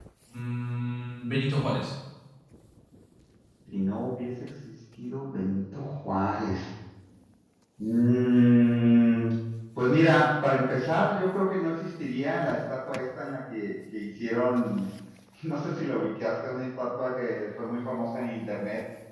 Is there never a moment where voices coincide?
Yes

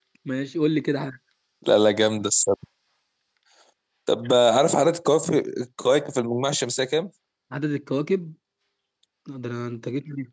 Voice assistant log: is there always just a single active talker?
Yes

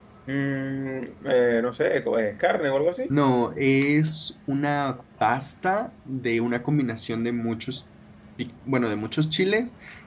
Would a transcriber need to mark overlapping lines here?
No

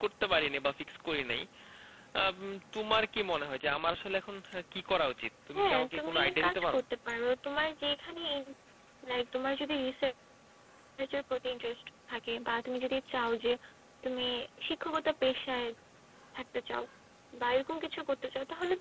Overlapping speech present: Yes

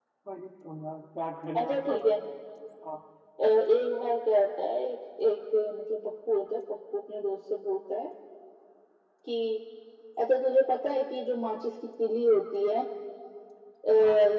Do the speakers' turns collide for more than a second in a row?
No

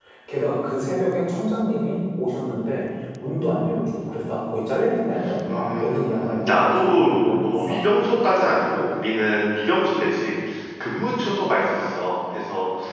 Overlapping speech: Yes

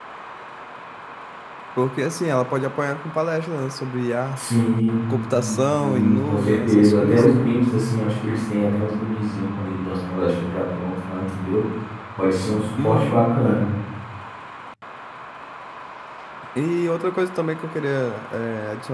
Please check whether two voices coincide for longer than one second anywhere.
Yes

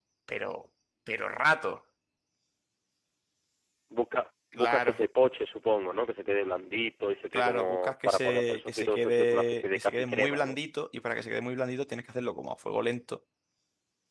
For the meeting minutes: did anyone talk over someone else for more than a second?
Yes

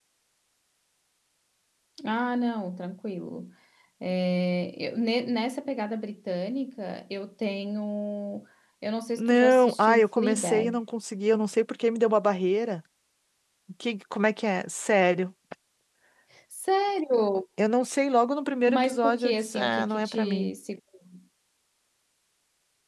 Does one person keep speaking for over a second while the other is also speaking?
Yes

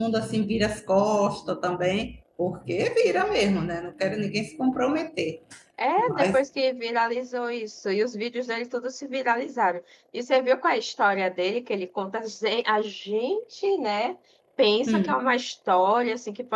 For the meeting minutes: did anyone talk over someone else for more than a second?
No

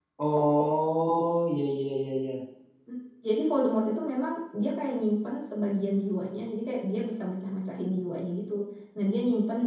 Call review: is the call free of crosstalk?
Yes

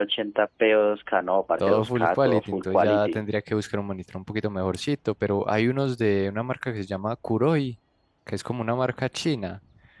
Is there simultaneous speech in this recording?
Yes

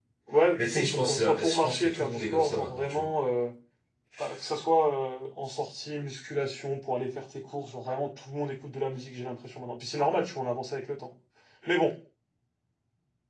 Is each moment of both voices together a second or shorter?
No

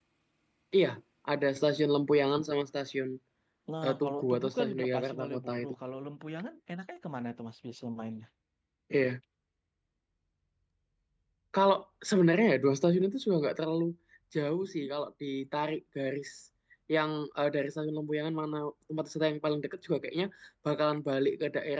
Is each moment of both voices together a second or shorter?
No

